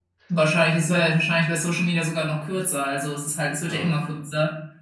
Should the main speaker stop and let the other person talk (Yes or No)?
No